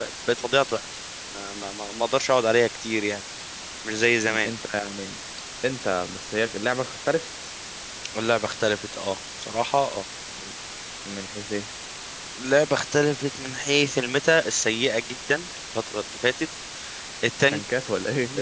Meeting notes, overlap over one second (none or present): none